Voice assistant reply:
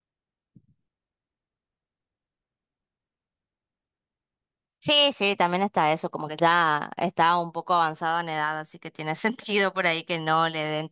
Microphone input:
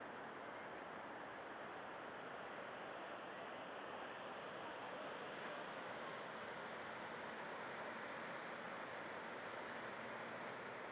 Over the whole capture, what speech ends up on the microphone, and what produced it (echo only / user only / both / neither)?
neither